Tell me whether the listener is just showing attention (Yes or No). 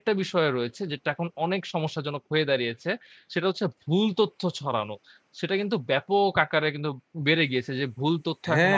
No